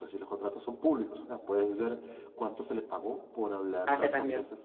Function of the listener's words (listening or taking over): listening